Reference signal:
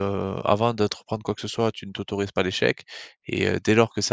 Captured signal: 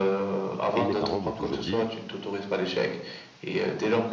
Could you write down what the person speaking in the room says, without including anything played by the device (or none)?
et mes parents m'ont toujours dit: